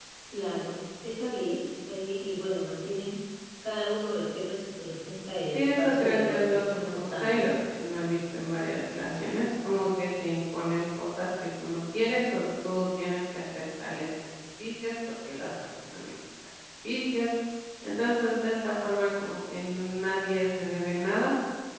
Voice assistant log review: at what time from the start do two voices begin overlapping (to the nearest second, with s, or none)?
6 s